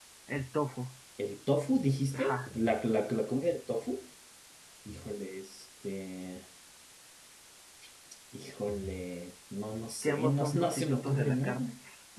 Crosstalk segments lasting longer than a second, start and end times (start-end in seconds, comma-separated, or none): 10.0-11.7